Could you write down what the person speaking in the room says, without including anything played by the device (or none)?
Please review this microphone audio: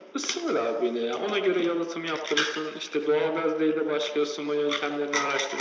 none